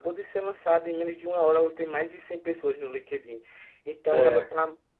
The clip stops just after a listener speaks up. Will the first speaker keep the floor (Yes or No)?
Yes